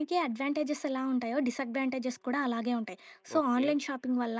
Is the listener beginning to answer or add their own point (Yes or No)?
No